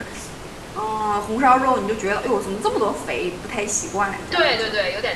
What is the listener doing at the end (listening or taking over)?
taking over